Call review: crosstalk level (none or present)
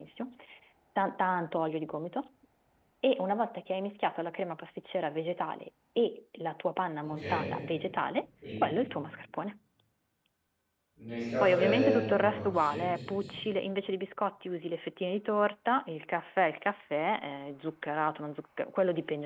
present